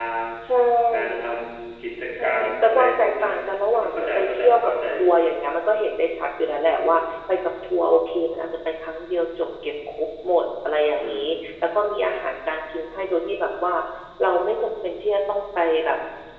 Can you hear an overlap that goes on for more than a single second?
Yes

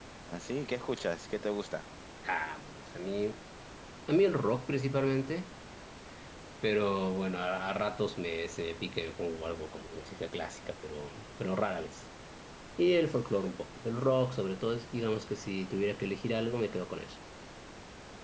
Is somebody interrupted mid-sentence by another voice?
No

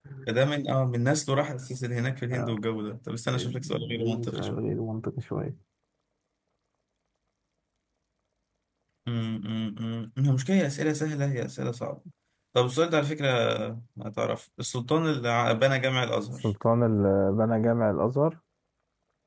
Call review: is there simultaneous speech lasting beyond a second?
Yes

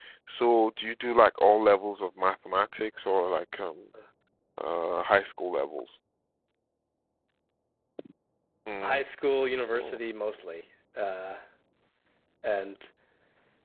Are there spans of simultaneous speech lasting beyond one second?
No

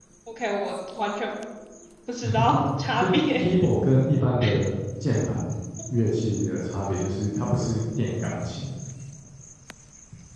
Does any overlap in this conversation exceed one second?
No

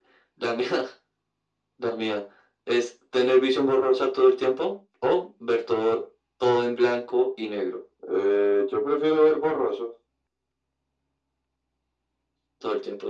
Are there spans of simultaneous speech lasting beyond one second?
No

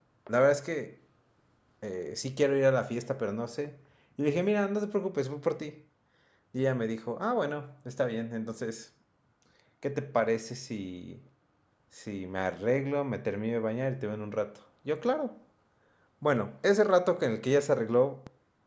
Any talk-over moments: No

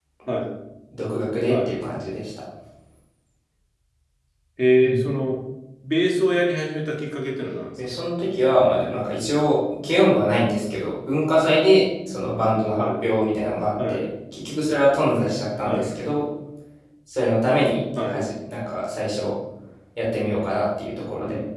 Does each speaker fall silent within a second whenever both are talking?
Yes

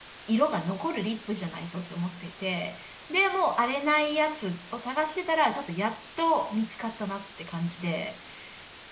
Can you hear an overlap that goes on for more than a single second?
No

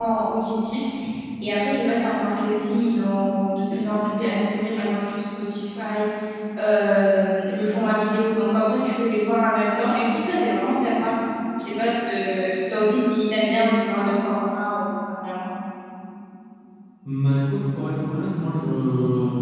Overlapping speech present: No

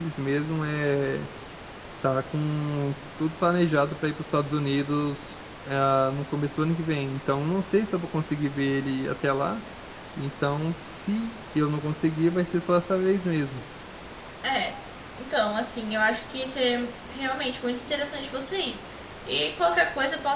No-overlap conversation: Yes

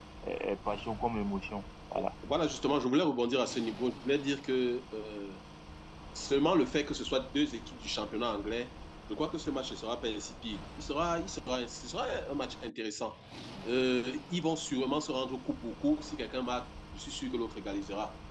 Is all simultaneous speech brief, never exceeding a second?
Yes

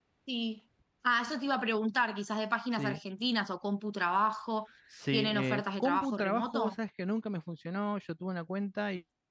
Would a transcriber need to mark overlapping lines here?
Yes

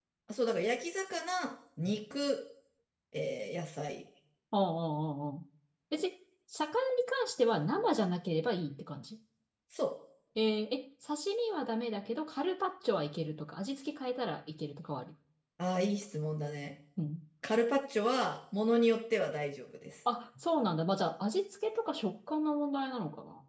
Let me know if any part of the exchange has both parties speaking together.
No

